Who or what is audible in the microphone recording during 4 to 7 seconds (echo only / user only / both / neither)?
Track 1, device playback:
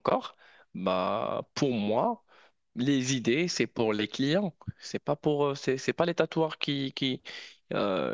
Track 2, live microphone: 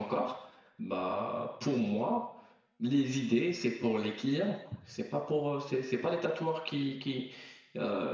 echo only